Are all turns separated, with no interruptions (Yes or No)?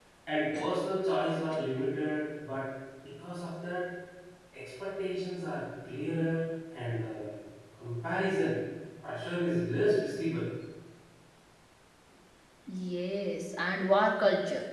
Yes